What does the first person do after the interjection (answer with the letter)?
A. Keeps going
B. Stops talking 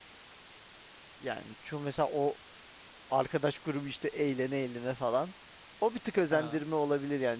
A